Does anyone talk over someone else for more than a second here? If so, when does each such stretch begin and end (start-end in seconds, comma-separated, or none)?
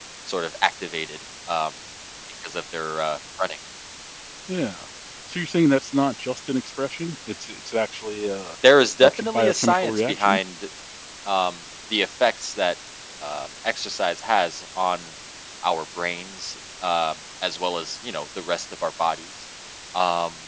9.0-10.4